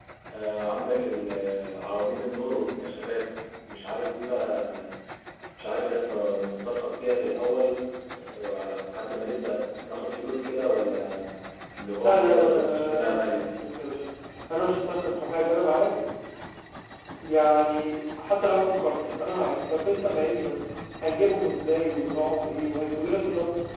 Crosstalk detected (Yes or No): Yes